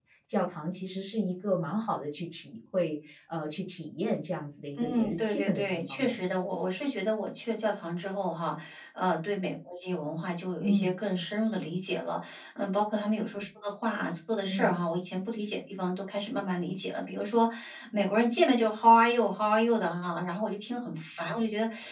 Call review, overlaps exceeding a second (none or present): present